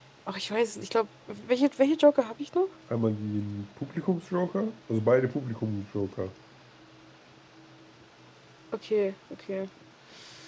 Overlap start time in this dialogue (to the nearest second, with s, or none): none